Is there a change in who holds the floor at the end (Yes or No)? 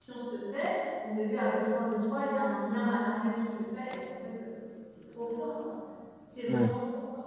No